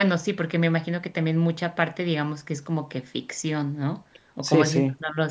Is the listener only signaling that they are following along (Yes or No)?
Yes